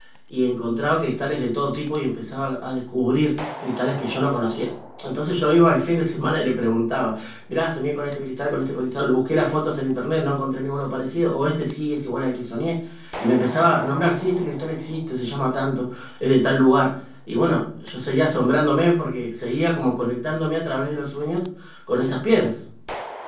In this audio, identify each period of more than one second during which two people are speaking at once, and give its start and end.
none

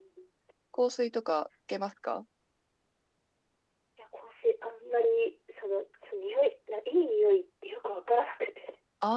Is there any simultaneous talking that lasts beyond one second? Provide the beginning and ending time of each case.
none

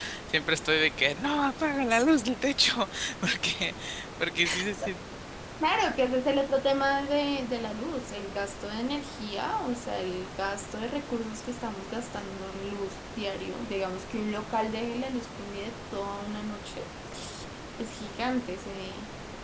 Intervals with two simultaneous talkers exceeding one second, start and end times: none

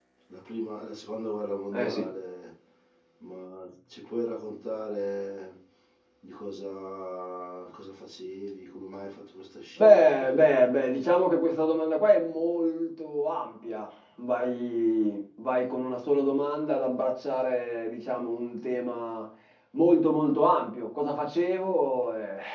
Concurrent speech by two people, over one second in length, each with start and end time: 9.8-11.3

